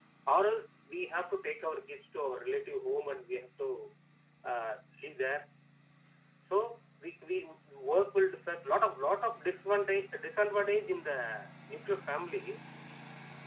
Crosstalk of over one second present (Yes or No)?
No